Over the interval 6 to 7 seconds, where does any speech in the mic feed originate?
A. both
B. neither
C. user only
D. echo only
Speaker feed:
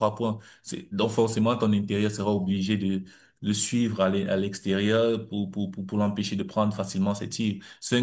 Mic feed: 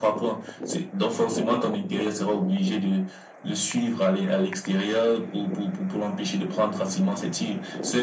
D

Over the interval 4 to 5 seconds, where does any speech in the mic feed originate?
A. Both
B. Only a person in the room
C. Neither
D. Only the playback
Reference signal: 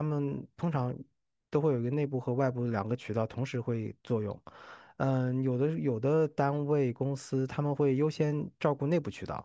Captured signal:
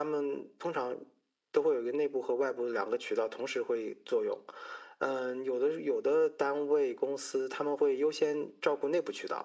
D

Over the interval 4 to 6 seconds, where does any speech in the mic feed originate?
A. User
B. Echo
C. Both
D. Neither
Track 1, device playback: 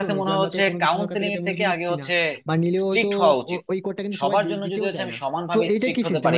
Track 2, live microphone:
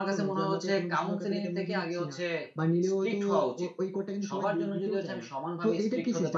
B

